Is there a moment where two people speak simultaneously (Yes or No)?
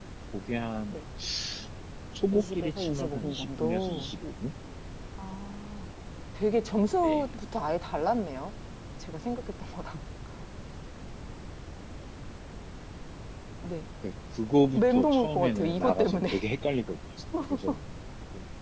Yes